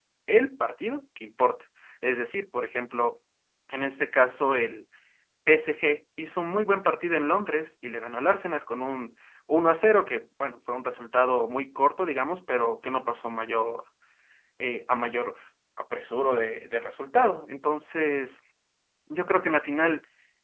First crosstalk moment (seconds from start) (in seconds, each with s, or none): none